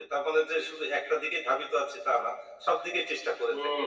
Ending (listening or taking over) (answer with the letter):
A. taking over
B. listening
A